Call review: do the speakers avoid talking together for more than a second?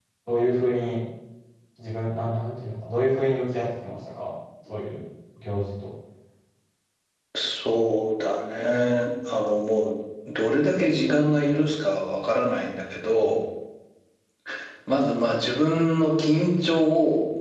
Yes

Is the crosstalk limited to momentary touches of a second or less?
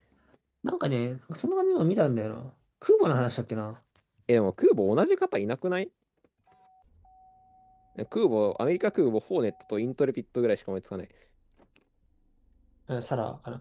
Yes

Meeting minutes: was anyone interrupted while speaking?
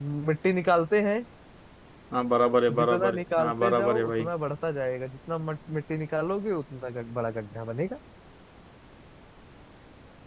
Yes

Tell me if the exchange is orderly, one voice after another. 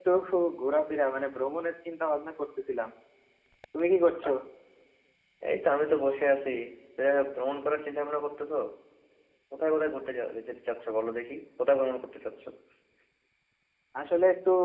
Yes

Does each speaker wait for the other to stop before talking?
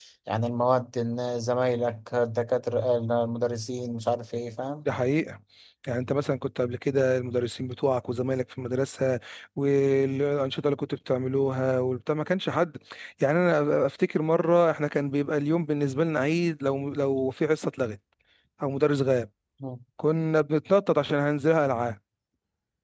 Yes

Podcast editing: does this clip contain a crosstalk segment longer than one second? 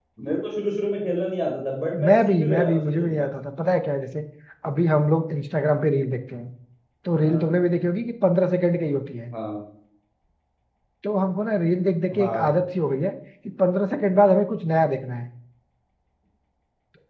Yes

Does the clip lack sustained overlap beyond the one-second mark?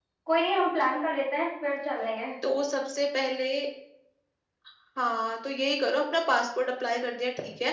Yes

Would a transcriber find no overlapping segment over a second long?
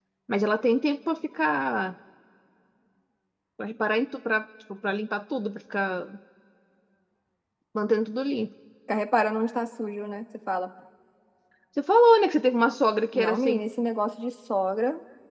Yes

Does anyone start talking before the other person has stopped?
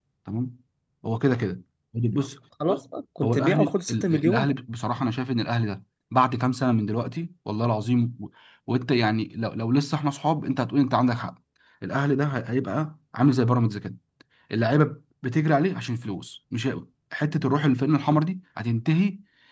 Yes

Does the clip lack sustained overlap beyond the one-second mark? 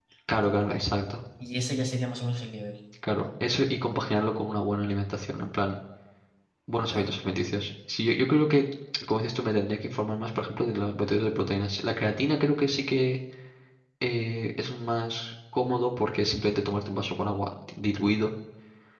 Yes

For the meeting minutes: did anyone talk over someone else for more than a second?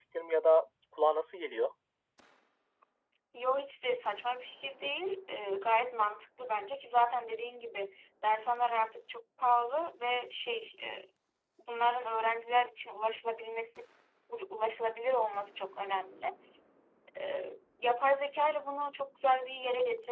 No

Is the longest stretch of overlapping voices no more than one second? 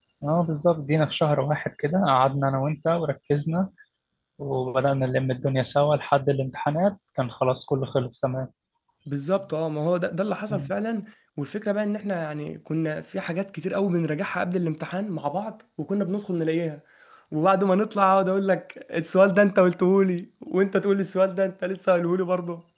Yes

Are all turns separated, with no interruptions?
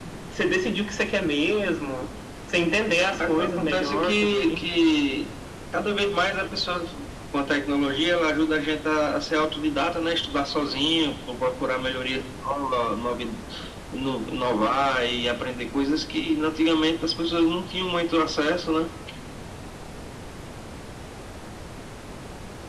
No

